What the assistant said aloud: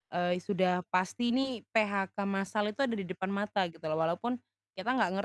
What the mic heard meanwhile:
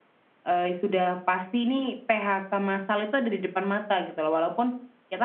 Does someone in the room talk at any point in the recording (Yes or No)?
No